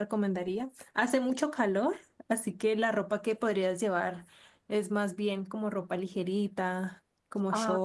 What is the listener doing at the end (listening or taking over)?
taking over